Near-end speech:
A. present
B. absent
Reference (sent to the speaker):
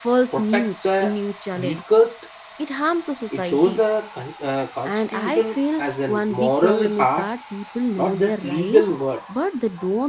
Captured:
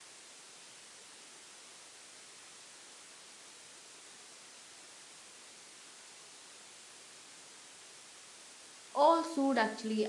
A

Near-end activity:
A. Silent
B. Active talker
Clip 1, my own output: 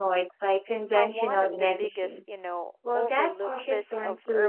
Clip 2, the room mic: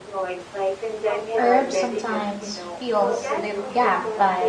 B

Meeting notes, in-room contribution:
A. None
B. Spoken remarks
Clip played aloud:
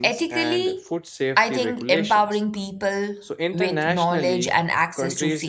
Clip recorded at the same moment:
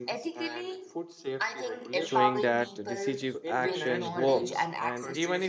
B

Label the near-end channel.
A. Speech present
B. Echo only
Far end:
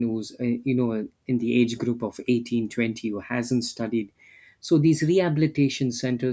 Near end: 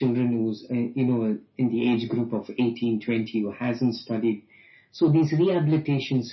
B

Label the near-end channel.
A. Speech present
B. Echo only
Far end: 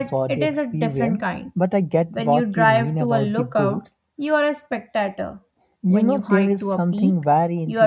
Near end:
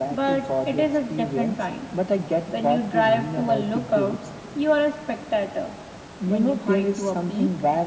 B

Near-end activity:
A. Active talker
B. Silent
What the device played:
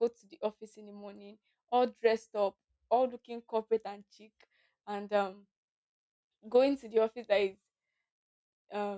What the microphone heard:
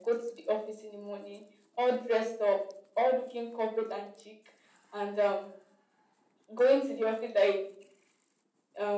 B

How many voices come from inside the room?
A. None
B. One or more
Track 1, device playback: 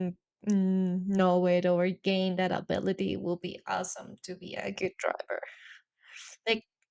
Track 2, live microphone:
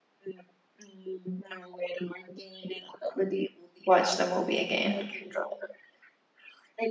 B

